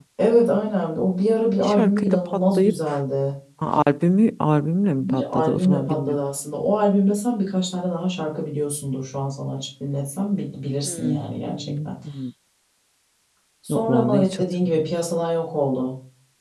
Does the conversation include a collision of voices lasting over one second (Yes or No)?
Yes